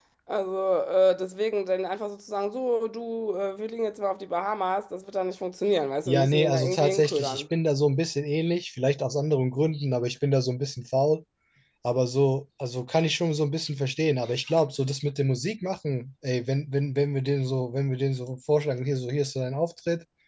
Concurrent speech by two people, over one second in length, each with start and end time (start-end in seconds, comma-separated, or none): 6.1-7.4